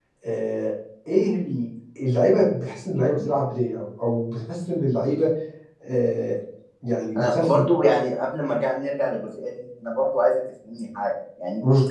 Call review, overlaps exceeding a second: none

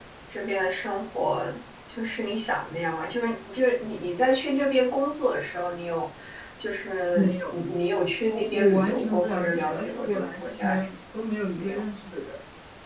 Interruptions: present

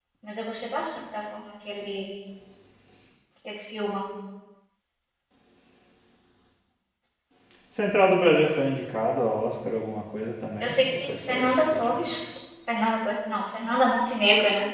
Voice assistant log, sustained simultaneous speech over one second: present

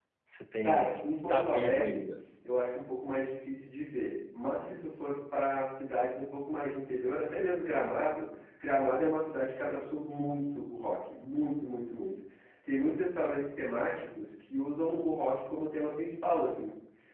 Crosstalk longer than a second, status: present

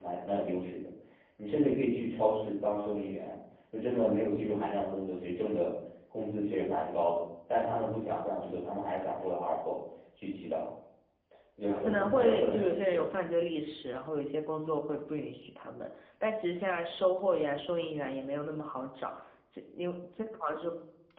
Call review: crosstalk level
present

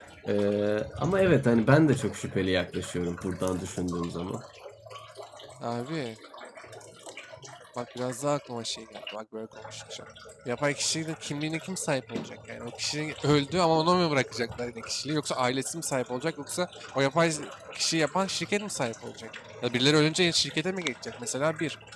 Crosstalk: none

